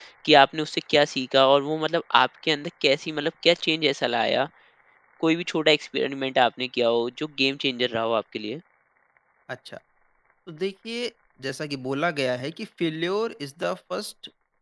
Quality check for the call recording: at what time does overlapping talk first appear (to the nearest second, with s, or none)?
none